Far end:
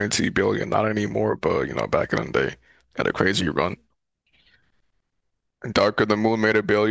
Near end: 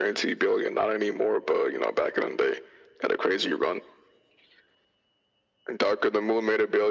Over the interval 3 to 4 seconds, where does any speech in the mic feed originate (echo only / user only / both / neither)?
echo only